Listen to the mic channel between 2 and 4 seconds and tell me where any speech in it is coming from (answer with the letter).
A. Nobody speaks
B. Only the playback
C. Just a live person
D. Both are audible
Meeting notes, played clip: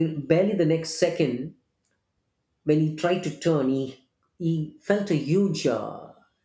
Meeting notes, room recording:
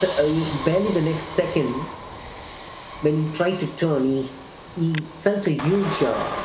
B